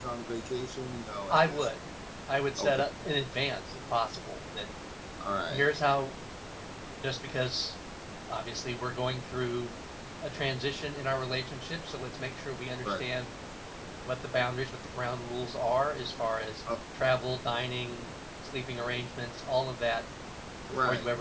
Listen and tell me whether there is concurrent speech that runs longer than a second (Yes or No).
No